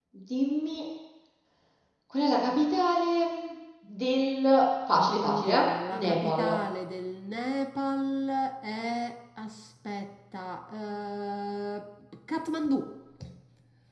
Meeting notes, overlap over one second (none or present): present